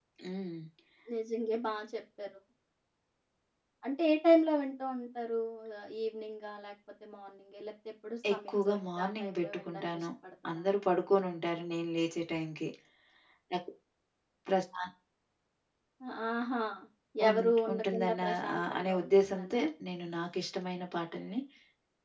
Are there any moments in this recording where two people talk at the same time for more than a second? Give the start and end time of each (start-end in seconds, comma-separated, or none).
8.3-10.1, 17.3-19.6